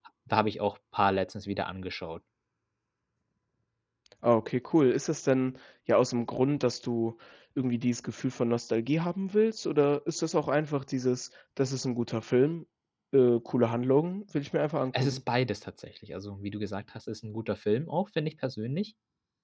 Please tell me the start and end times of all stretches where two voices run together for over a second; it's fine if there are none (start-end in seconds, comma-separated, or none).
none